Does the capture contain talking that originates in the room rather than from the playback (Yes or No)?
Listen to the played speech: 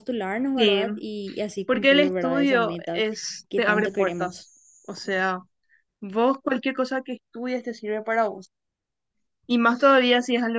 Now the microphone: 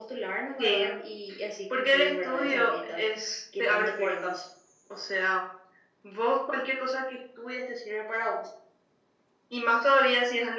Yes